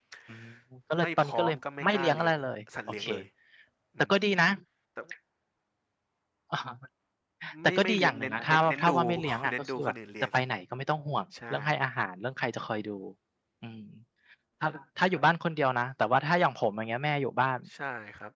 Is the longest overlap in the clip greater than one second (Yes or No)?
Yes